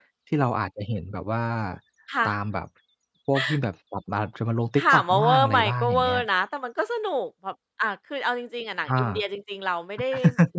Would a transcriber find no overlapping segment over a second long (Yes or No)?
No